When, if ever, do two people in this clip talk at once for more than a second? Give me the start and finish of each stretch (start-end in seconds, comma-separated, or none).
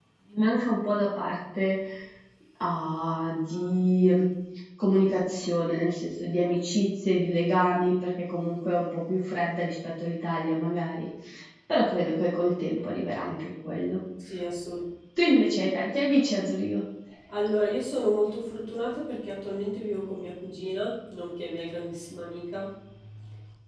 none